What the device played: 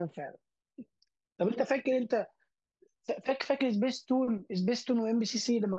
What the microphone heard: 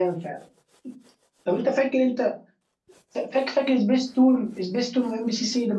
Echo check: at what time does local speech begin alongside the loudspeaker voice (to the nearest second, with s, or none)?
none